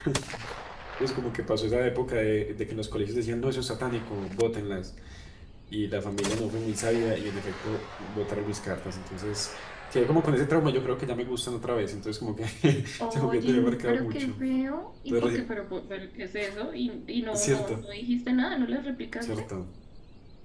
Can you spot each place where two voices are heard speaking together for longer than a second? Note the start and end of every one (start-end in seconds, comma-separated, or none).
13.1-14.4